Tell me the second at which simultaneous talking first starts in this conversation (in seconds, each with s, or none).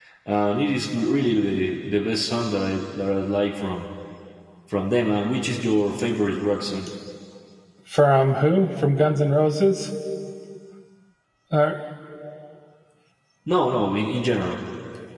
none